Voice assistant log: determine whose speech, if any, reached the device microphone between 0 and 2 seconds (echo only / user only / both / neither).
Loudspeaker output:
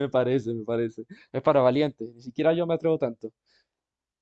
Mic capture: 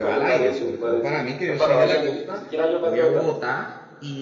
both